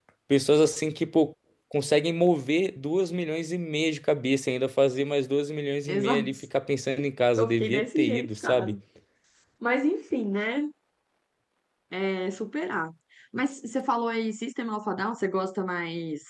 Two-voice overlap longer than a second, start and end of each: 7.4-8.8

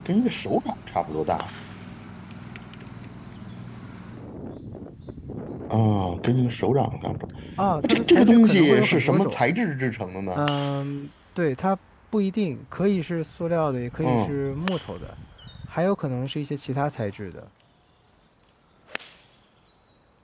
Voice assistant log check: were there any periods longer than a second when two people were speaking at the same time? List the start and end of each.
7.8-9.4

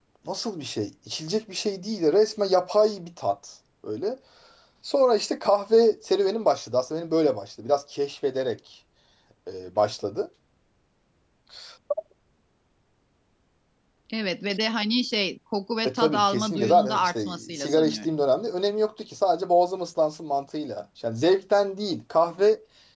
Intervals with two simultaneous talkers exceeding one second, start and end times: 15.8-18.1

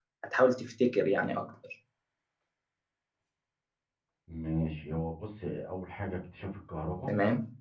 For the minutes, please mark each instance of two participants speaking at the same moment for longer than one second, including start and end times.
none

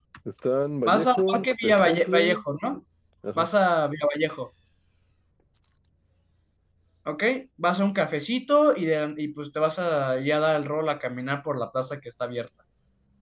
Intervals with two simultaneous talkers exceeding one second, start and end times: 0.9-2.4

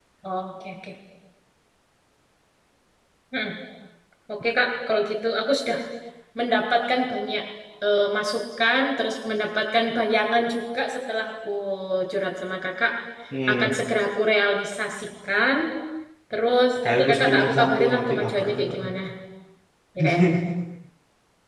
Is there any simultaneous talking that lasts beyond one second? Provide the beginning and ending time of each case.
16.8-18.8

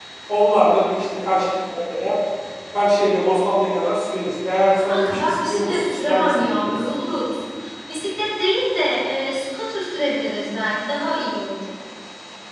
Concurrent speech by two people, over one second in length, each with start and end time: 4.7-6.7

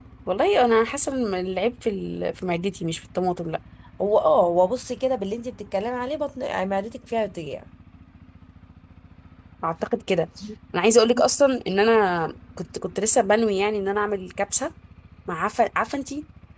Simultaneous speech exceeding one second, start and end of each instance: none

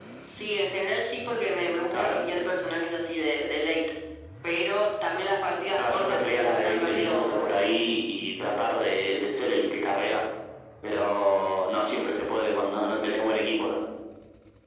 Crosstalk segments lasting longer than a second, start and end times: 5.8-7.7

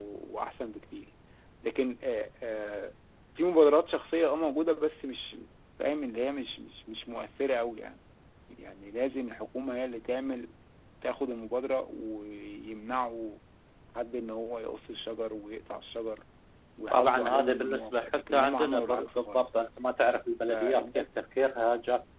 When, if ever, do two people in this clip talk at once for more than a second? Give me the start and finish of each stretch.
16.9-19.4

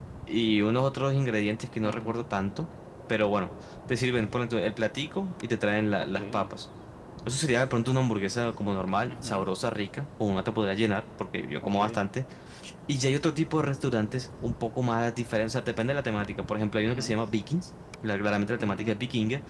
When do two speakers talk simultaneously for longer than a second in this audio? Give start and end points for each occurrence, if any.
none

